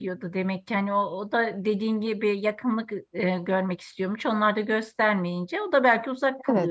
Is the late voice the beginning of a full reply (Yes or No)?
Yes